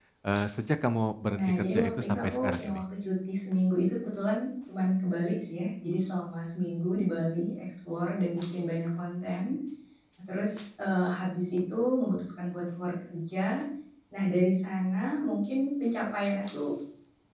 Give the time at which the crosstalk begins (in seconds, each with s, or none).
1.3 s